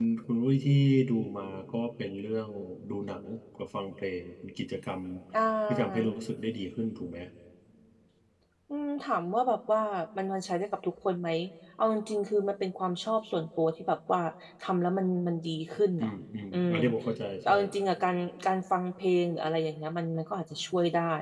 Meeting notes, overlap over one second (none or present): none